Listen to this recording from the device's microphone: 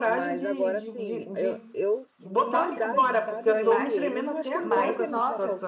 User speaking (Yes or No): Yes